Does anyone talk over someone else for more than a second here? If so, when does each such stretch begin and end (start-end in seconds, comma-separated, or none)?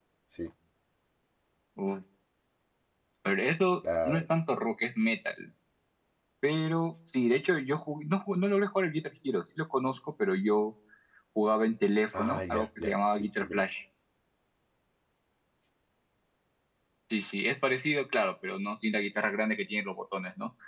12.2-13.6